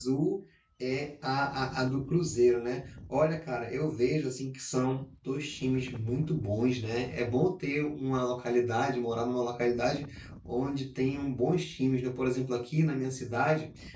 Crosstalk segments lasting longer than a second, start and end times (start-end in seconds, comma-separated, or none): none